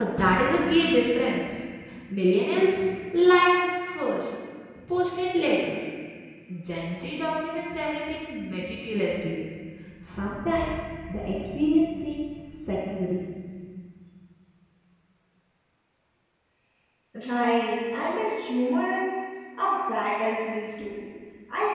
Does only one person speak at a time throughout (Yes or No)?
Yes